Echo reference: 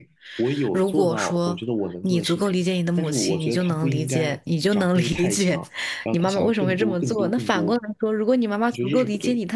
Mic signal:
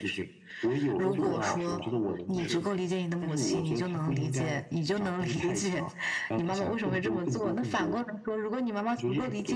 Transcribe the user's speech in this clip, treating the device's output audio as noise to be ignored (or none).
都是我当时打工的同事。